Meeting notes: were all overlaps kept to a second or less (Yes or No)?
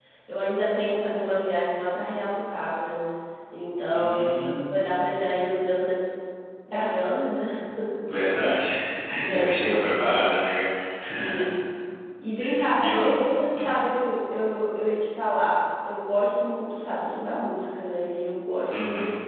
No